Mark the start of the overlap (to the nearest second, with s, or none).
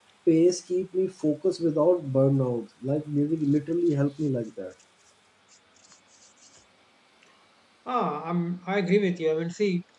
none